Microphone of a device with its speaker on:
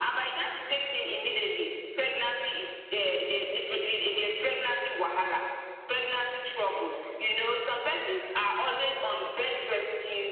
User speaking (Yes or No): No